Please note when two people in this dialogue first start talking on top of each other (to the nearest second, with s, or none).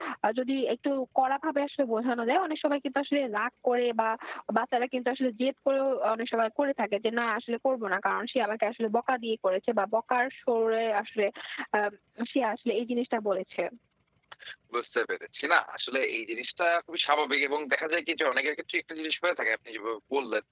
none